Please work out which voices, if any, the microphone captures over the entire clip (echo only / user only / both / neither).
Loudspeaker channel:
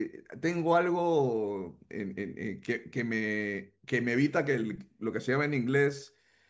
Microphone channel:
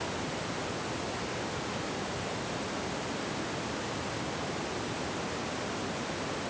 neither